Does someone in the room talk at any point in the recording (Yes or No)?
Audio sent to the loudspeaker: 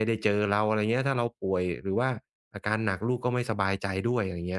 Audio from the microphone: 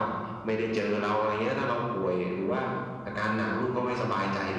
No